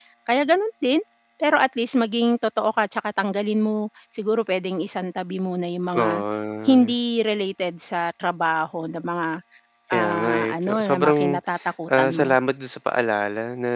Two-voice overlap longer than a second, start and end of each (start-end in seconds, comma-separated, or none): 9.9-11.4